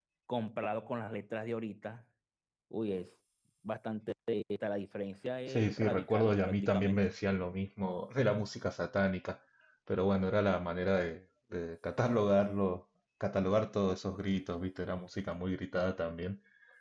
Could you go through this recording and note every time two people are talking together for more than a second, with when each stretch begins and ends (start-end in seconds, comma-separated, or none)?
5.5-7.1